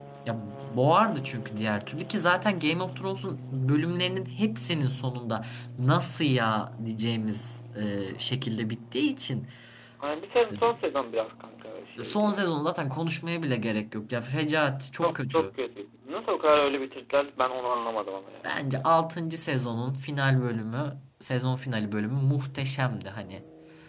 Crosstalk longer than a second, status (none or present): none